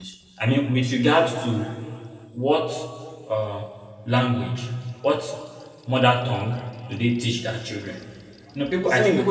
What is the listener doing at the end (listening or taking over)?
taking over